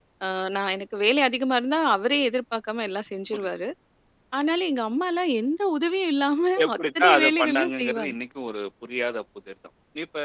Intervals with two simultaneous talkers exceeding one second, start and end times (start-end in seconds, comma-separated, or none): 6.6-8.2